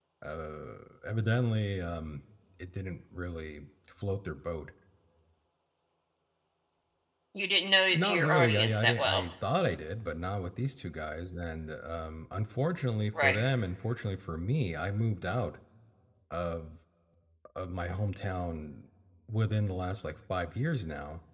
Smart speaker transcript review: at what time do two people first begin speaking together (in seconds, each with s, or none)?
7.9 s